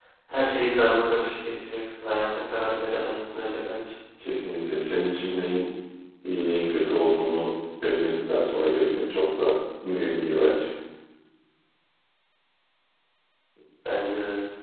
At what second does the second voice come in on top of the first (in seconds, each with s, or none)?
none